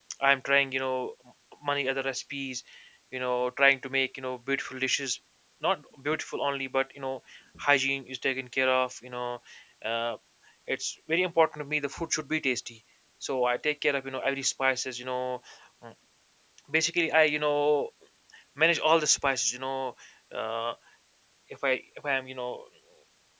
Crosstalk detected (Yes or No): No